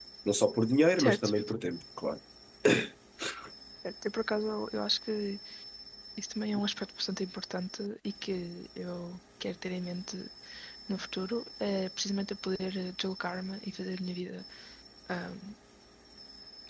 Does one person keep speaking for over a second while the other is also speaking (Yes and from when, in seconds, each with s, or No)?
No